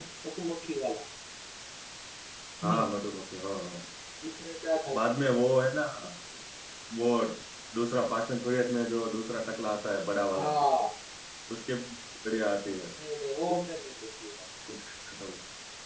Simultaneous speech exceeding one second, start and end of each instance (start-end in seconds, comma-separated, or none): none